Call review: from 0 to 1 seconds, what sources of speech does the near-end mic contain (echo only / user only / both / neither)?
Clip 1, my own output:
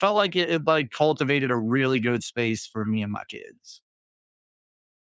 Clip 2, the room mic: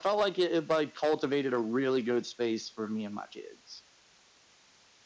echo only